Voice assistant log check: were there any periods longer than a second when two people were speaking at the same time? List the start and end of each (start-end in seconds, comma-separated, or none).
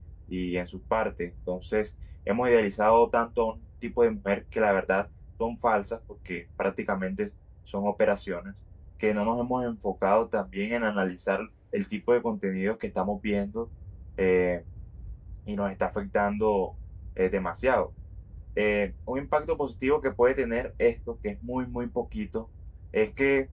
none